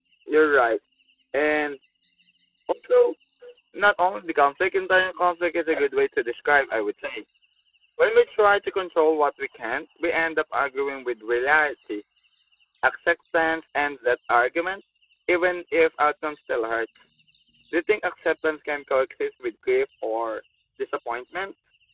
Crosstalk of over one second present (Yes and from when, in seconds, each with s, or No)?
No